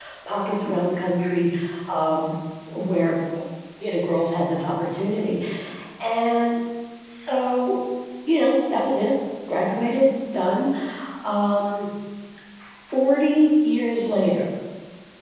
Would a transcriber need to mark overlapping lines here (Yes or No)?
No